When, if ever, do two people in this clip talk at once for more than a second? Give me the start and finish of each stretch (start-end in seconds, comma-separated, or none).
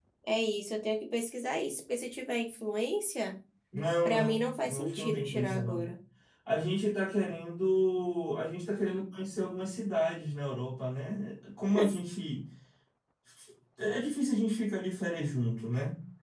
4.0-5.8